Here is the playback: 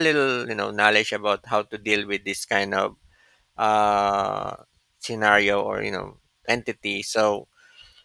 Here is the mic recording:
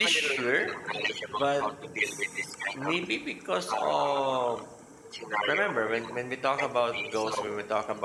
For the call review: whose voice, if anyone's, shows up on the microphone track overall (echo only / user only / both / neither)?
both